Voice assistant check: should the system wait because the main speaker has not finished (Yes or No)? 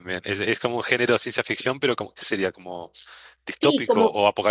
No